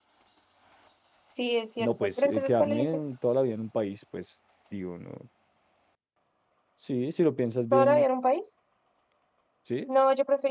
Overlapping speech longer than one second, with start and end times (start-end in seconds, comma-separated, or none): 1.8-3.1